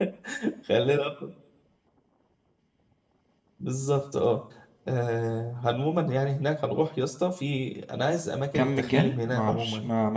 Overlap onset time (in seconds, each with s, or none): 8.5 s